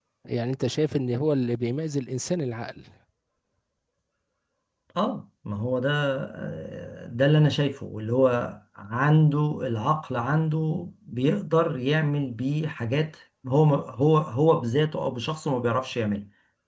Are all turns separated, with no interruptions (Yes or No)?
Yes